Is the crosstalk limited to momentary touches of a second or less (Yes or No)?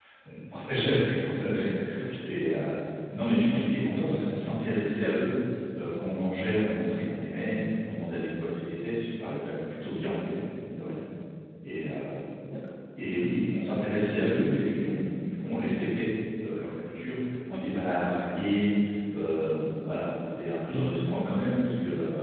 Yes